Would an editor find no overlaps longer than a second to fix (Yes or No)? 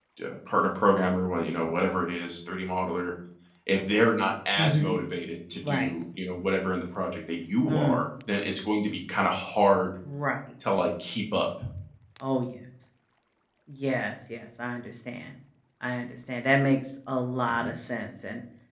Yes